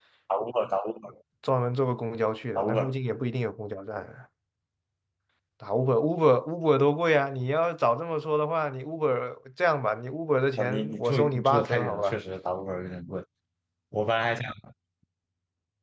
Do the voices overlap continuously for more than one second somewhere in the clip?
Yes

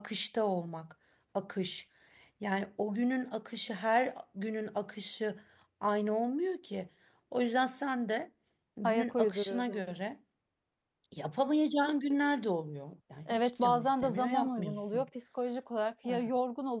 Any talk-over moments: Yes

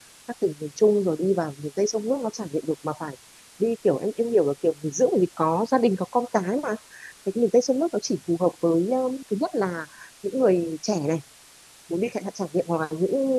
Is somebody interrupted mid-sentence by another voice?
No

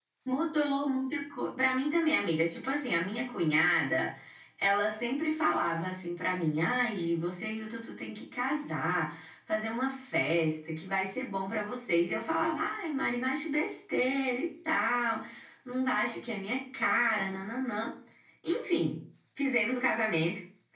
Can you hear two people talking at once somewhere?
No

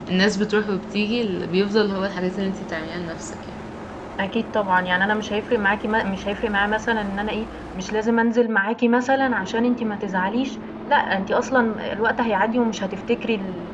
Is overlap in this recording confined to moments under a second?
Yes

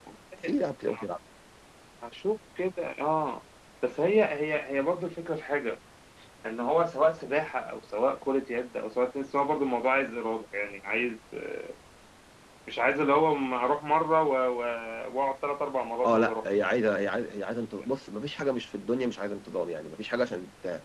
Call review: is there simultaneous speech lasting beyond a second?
No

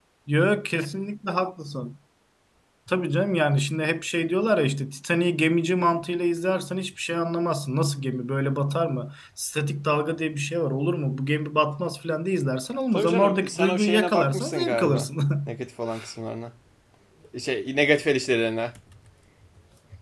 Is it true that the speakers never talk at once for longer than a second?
No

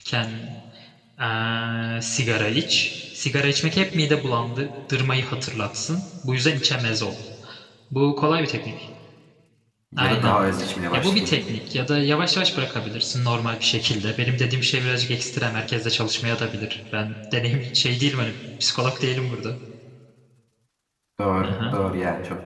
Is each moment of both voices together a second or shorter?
Yes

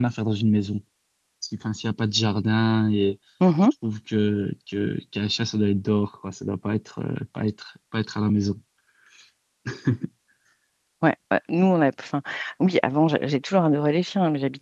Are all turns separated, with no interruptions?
Yes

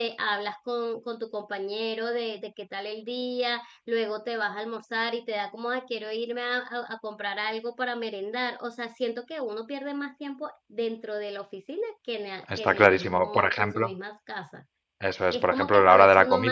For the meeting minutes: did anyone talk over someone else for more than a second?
Yes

